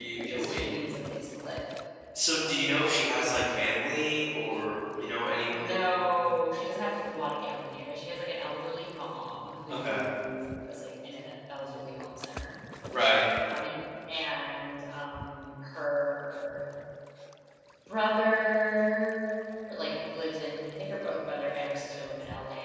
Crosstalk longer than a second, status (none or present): present